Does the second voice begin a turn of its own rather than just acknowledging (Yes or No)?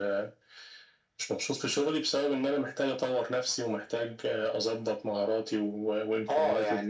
Yes